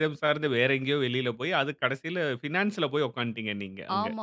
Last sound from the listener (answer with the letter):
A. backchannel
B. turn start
B